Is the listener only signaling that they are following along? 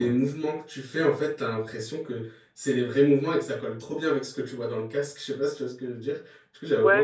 No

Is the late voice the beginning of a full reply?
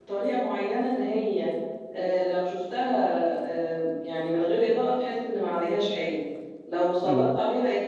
No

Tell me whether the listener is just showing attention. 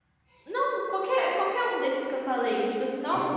Yes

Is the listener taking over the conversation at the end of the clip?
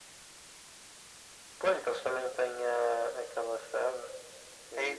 Yes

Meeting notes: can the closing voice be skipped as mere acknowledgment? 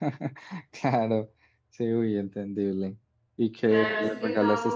No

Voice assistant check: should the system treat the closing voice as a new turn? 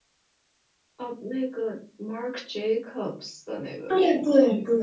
Yes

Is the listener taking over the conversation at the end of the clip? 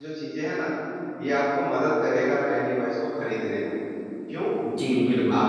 No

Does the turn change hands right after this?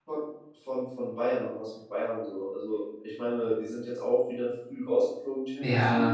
Yes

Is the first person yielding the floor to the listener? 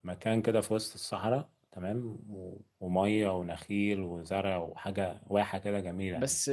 Yes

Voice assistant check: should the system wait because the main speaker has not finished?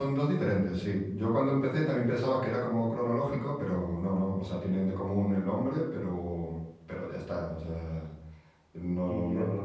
No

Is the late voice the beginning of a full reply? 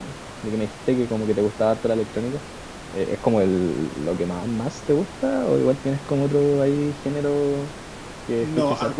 Yes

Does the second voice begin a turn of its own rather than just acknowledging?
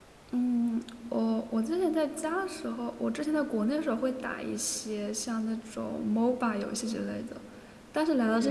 No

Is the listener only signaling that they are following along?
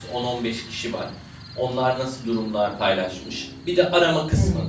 Yes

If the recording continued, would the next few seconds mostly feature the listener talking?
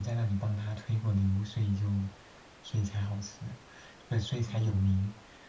No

